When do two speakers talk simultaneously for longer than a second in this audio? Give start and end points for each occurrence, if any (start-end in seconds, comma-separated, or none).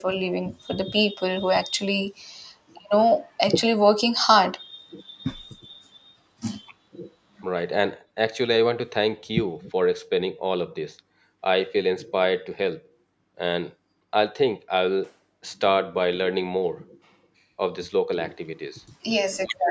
none